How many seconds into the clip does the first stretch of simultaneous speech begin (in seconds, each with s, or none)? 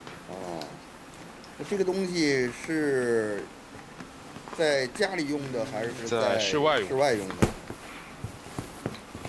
5.4 s